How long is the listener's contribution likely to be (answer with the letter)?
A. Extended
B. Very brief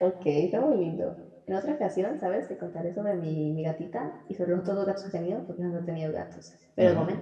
B